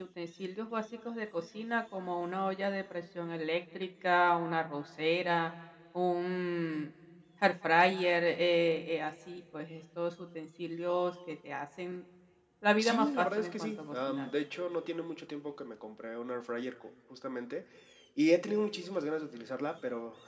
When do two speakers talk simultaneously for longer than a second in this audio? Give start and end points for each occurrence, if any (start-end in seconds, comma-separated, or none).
12.8-14.3